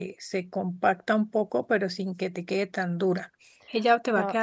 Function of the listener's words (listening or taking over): taking over